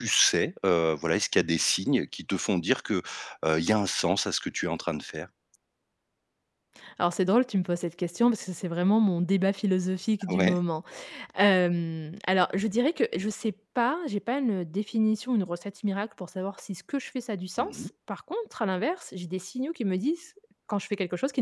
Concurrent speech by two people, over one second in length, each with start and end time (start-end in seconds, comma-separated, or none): none